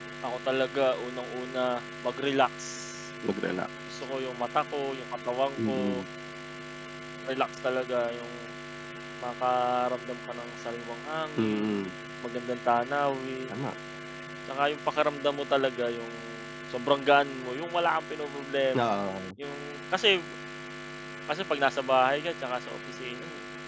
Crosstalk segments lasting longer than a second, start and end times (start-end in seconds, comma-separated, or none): none